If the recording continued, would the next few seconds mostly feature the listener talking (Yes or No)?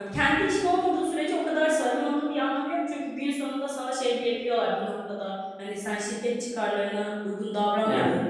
No